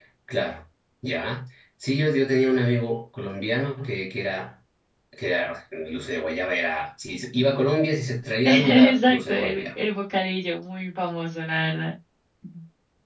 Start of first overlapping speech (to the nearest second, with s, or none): 8 s